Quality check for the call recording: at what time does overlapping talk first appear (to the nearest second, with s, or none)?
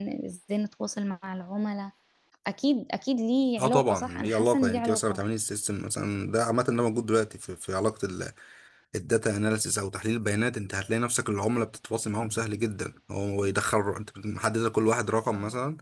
4 s